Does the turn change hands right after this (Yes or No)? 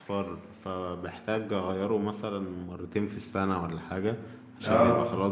No